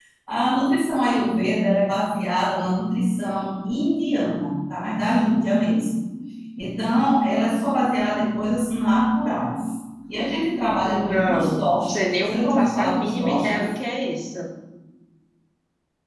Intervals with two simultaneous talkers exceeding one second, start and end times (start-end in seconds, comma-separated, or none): 10.9-13.6